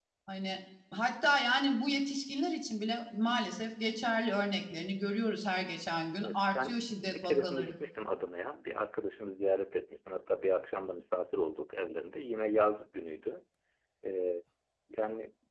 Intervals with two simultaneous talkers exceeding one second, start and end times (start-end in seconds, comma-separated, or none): 6.2-7.7